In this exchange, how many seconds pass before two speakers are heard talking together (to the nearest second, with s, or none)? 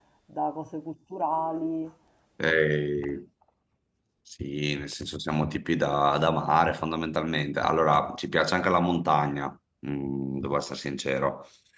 none